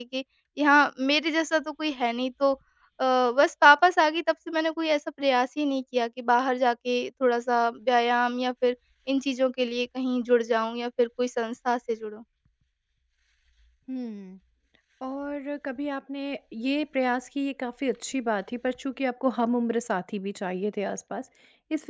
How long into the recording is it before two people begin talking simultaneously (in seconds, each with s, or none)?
none